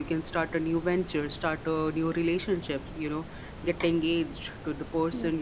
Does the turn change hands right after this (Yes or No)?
No